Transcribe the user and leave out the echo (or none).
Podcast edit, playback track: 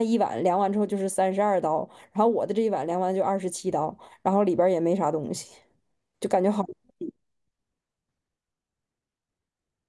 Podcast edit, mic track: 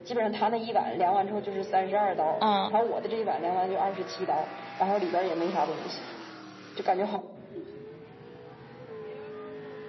嗯。